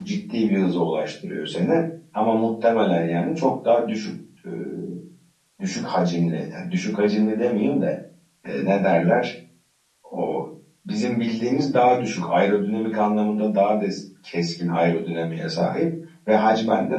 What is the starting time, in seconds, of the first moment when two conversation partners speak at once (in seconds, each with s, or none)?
none